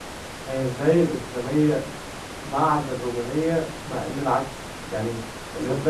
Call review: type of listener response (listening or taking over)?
listening